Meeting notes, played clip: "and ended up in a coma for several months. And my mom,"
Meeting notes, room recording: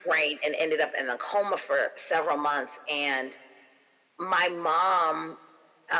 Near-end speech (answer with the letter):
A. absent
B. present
A